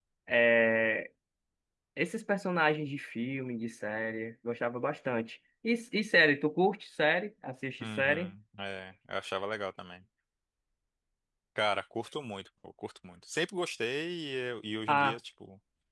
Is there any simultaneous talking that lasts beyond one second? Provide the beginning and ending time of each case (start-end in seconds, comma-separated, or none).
none